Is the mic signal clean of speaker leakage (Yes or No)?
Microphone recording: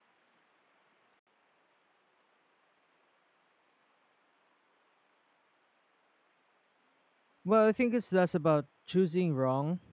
Yes